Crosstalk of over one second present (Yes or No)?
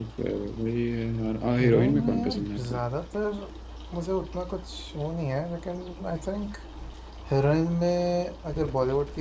Yes